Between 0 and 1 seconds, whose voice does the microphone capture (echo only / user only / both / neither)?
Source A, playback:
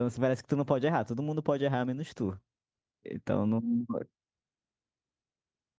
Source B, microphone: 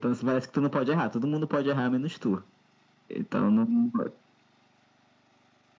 echo only